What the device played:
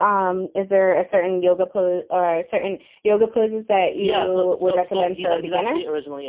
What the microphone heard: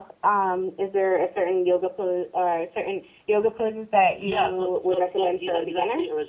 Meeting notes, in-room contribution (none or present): none